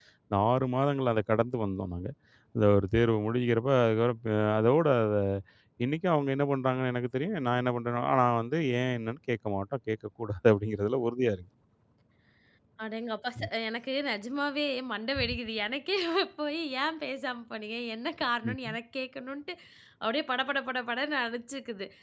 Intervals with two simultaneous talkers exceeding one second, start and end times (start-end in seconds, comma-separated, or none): none